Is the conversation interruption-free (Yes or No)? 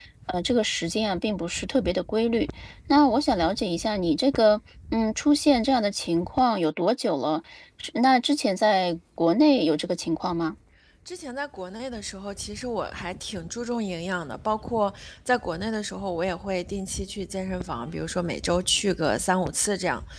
Yes